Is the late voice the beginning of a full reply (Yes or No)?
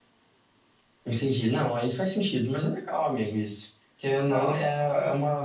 No